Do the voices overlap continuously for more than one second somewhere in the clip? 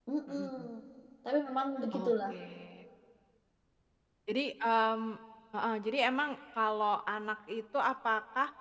No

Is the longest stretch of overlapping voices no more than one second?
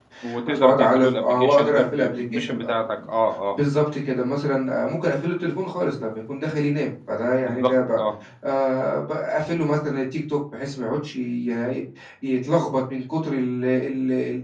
No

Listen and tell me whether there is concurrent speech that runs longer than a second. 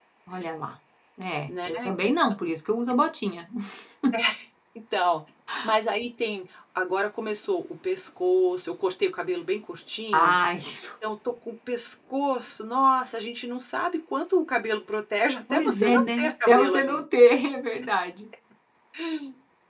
Yes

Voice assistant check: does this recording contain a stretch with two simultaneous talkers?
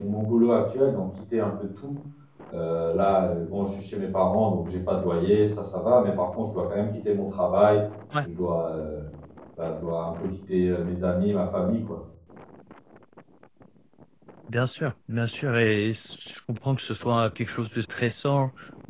No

